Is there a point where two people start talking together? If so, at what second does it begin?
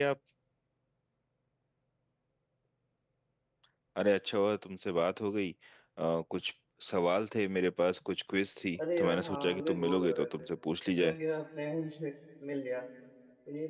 9.0 s

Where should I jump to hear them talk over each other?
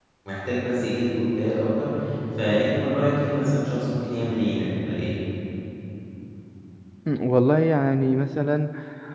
none

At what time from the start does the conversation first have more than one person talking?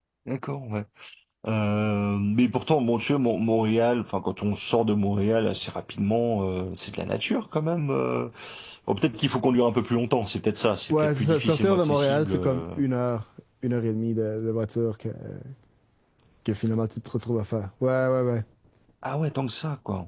10.9 s

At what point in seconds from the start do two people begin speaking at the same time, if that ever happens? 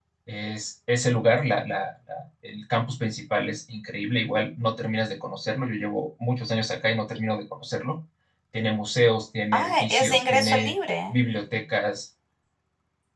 9.5 s

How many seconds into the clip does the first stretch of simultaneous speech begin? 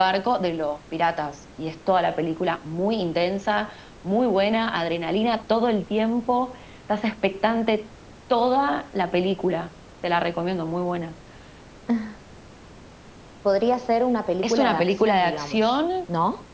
14.4 s

